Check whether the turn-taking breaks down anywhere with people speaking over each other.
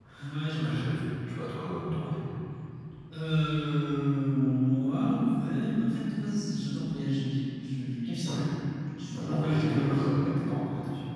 Yes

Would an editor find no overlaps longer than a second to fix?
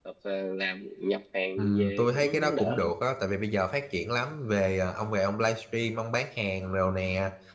No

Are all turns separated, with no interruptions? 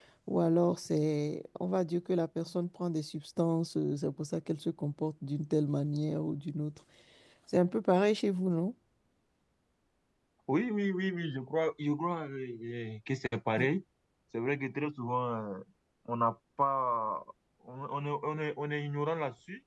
Yes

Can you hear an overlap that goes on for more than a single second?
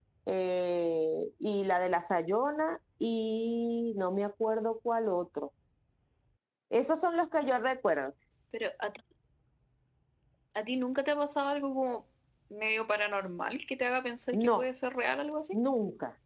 No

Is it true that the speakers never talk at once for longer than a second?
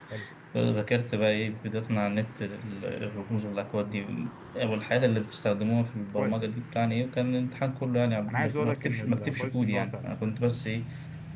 No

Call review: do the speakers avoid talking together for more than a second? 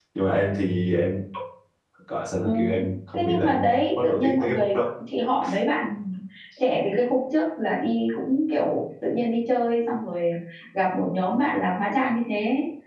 No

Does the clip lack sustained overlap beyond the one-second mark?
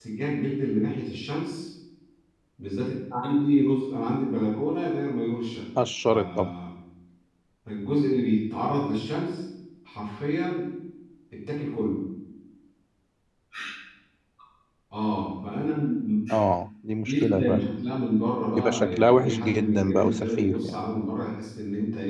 No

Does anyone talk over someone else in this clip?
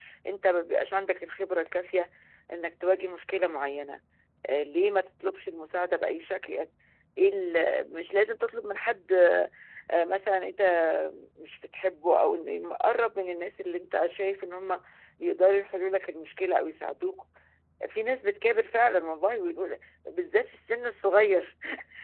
No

